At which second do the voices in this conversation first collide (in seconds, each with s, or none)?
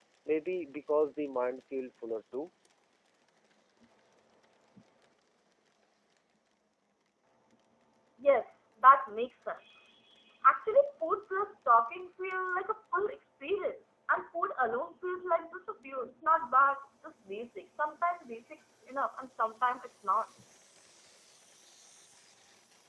none